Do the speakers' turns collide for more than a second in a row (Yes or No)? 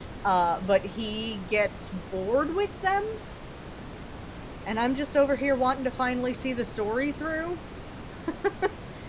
No